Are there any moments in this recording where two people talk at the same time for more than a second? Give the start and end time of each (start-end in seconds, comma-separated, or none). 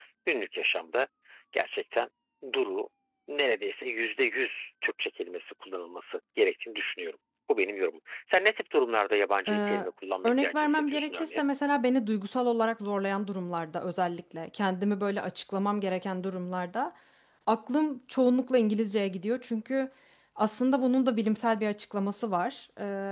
10.2-11.4